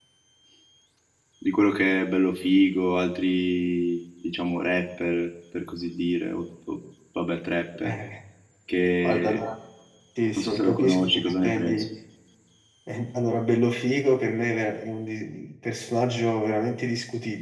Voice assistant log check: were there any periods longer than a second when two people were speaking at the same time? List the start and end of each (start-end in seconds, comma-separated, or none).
10.3-11.8